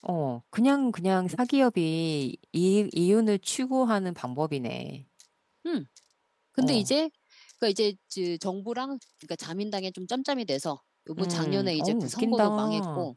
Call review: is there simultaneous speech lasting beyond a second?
Yes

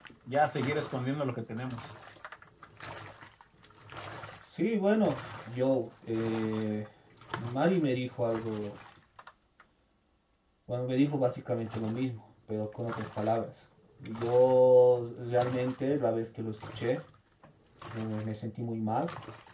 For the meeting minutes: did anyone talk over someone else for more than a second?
No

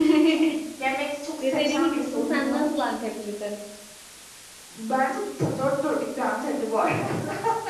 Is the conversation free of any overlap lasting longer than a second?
No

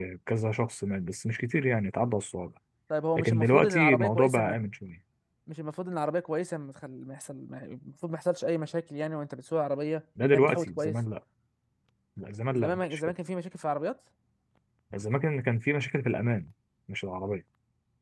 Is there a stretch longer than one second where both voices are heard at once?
Yes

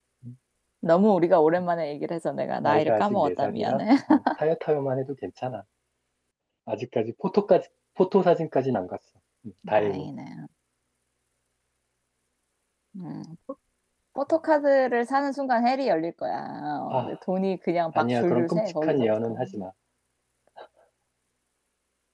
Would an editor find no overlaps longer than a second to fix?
No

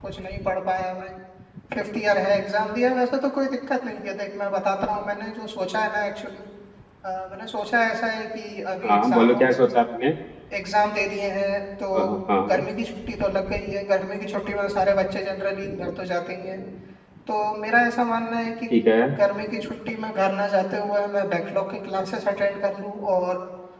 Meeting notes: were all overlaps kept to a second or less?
Yes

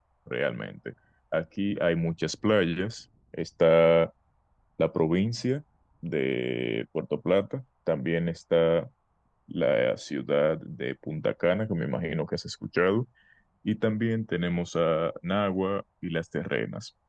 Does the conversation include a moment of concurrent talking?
No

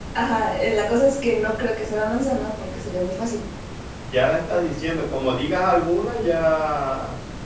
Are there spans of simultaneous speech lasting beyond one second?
No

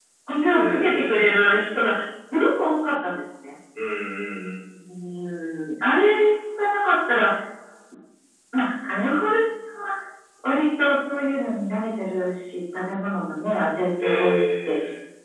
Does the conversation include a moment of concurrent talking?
Yes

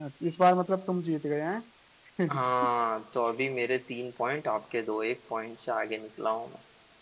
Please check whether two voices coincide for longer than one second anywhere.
No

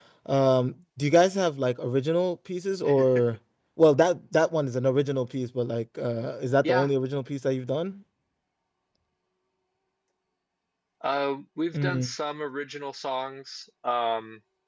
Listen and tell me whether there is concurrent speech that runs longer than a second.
No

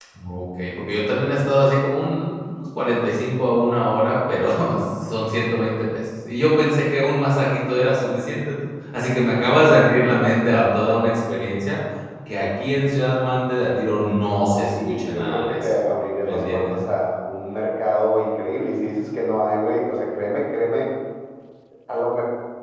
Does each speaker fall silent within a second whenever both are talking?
No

